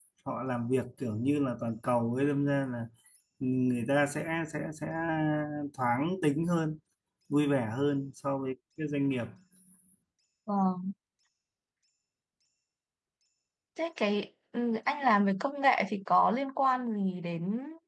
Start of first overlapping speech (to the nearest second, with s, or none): none